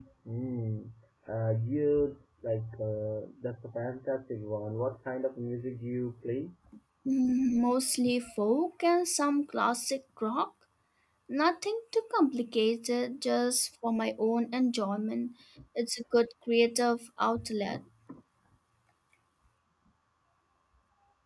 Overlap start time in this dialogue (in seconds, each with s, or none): none